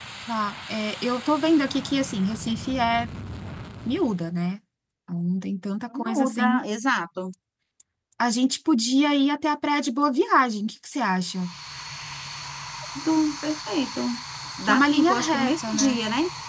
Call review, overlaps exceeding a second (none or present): present